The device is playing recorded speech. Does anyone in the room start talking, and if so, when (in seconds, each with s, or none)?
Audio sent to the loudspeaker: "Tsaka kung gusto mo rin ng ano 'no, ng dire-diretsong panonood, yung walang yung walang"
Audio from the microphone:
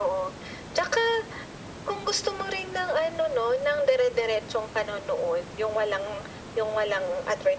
none